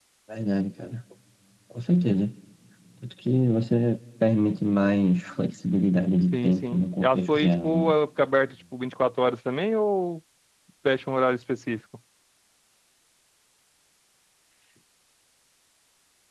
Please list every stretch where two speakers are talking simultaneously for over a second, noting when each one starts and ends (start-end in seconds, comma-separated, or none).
6.3-8.0